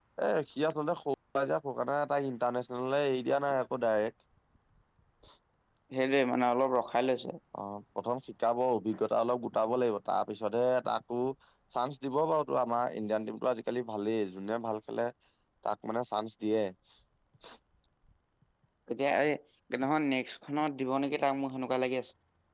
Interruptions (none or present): none